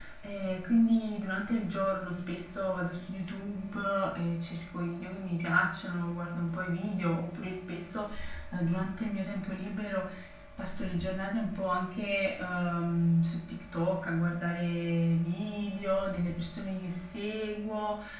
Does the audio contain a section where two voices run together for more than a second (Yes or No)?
No